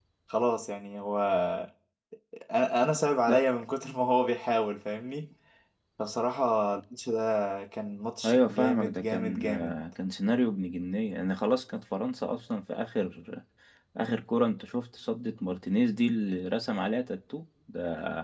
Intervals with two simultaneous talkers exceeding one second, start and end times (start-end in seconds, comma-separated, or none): 8.2-9.8